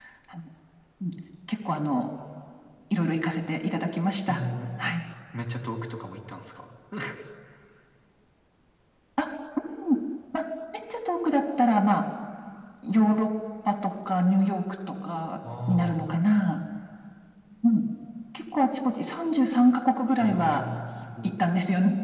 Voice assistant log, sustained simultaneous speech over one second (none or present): none